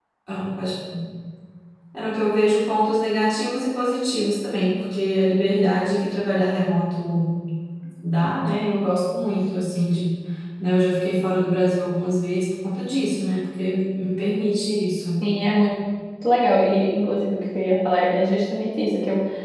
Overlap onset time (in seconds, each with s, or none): none